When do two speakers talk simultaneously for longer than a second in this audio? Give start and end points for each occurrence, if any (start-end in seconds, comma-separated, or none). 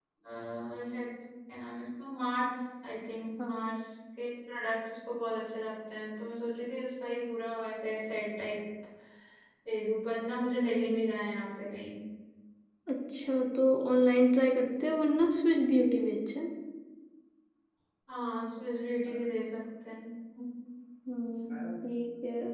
none